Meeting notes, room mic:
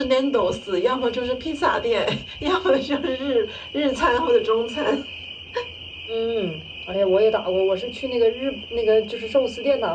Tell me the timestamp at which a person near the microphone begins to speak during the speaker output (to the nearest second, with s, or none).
none